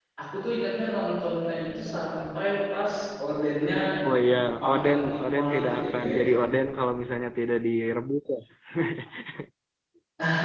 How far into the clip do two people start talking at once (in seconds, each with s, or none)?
4.4 s